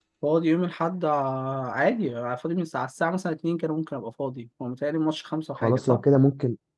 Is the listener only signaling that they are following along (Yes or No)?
No